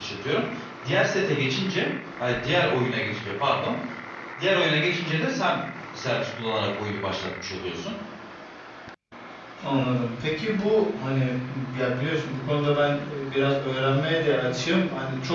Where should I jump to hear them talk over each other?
none

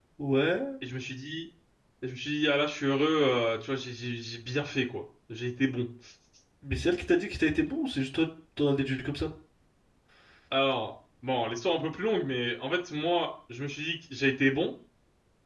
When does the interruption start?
none

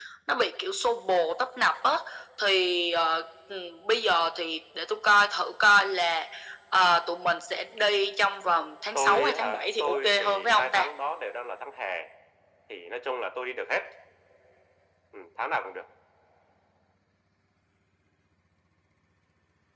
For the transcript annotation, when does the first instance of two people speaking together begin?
9 s

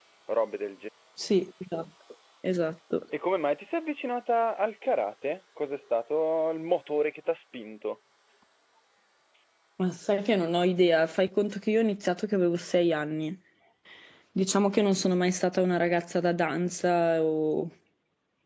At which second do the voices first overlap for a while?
none

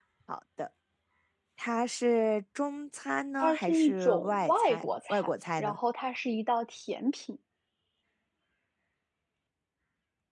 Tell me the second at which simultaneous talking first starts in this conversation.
3 s

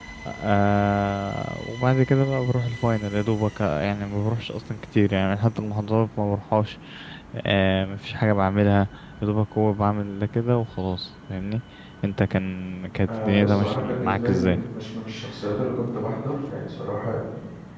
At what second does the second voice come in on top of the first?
13 s

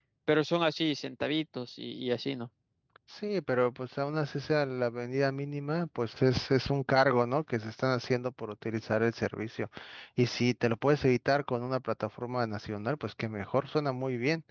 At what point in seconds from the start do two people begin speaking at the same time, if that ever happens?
none

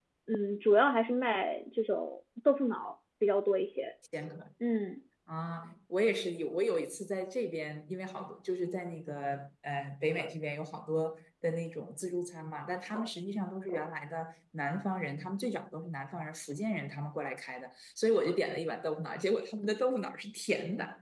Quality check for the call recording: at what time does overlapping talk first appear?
none

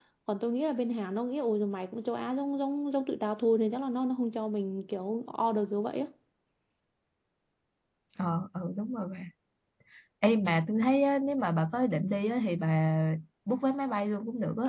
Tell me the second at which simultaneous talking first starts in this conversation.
none

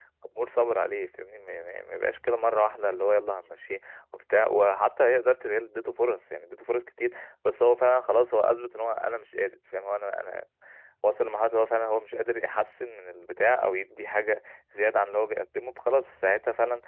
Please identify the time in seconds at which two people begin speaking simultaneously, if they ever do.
none

